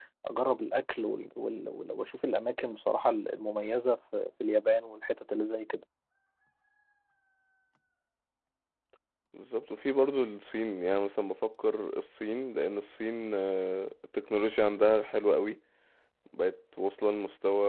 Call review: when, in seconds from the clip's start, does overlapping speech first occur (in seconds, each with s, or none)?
none